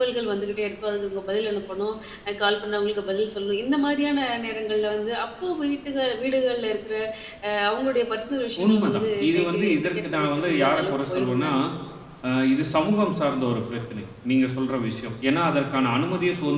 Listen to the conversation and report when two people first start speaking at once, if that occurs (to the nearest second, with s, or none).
9 s